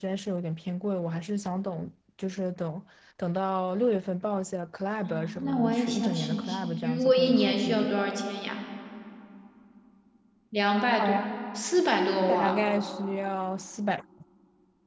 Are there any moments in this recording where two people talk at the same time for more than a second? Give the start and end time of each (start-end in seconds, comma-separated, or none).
5.1-7.9